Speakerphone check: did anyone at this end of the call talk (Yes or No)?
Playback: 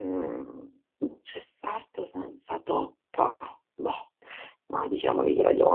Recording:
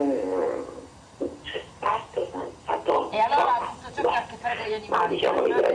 Yes